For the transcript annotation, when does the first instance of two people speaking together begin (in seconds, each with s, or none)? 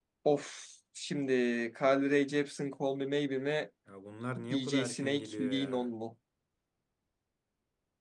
4.5 s